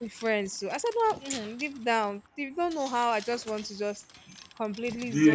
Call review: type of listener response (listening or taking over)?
listening